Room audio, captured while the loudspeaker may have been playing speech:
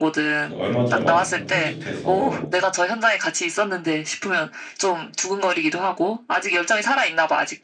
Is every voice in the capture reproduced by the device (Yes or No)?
No